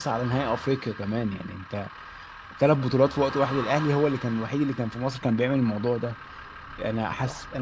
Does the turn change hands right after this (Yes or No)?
No